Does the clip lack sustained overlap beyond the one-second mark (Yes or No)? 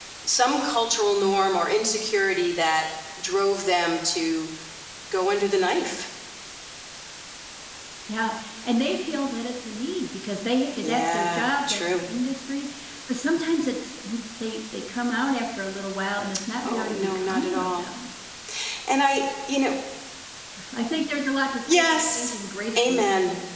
No